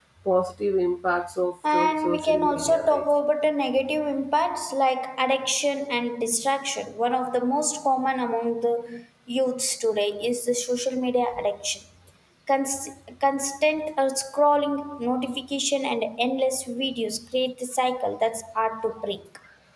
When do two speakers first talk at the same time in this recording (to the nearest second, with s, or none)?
2 s